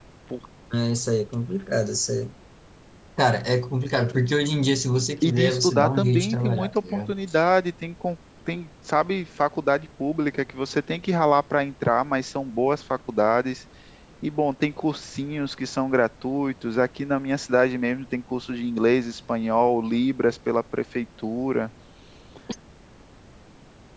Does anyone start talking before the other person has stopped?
Yes, from 5.2 s

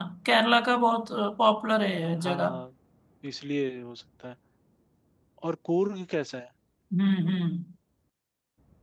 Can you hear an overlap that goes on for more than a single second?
No

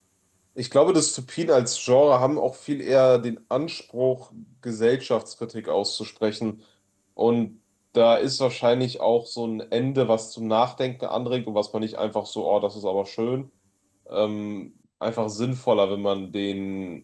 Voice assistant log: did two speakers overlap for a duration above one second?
No

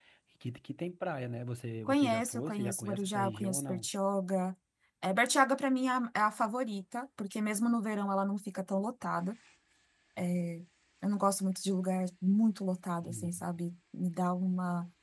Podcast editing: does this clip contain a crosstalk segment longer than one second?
Yes, from 1.9 s

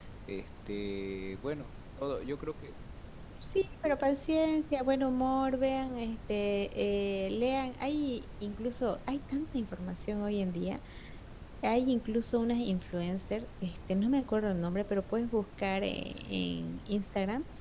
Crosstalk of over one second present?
No

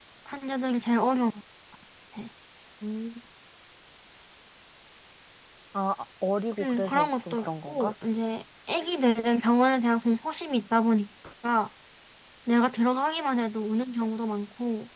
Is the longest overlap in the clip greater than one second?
Yes, from 6.6 s

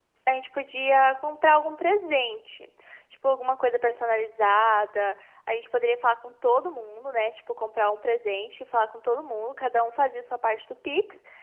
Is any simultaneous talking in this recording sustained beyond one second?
No

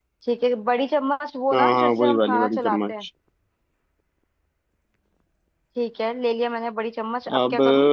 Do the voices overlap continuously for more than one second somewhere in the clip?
Yes, from 1.5 s

